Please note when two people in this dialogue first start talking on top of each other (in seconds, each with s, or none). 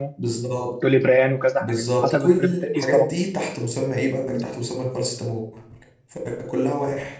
1.6 s